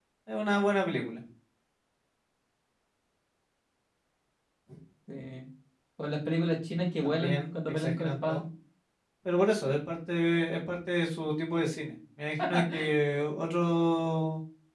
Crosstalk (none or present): present